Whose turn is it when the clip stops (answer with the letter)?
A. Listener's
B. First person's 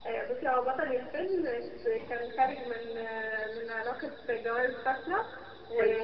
B